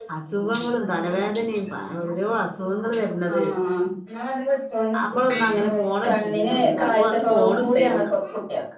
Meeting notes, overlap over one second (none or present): present